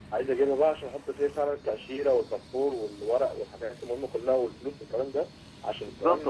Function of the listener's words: taking over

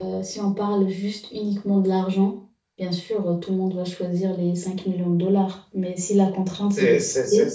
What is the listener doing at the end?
taking over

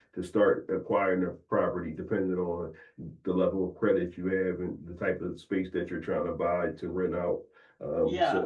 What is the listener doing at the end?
taking over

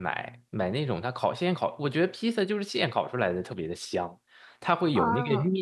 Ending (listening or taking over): listening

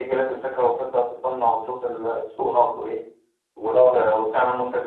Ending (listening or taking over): listening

